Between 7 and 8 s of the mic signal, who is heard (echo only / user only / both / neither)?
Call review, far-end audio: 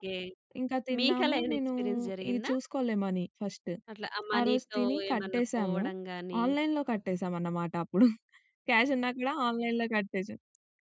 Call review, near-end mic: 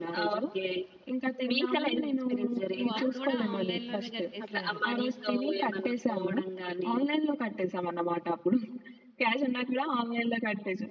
echo only